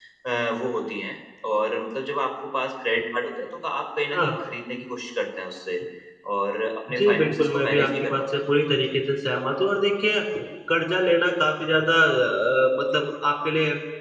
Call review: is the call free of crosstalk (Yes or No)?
No